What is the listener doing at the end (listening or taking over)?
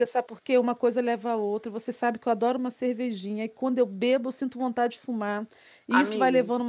listening